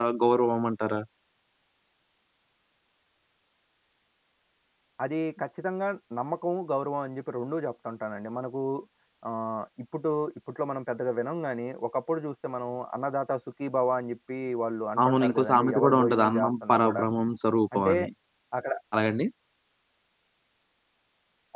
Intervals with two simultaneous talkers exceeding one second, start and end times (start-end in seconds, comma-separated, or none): 15.0-17.0